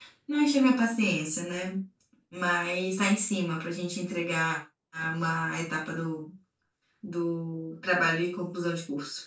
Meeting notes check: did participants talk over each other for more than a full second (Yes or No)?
No